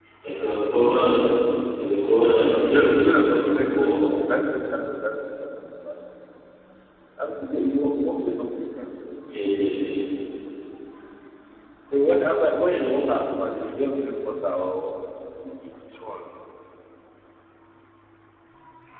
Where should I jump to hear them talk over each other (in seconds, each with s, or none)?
2.7 s